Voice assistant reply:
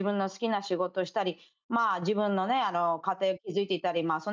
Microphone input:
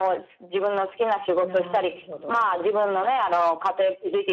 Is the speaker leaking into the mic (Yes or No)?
Yes